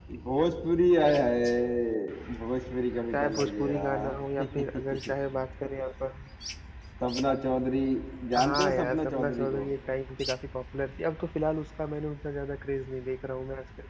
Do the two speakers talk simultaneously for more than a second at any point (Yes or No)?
Yes